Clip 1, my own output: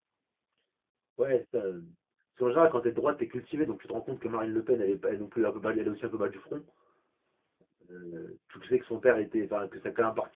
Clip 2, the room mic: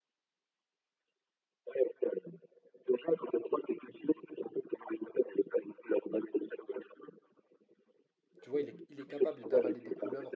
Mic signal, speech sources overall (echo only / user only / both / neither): both